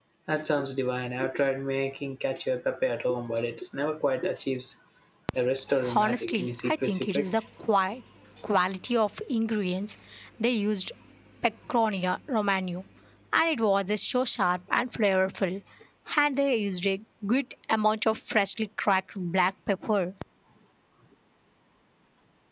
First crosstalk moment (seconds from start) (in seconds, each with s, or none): 6.0 s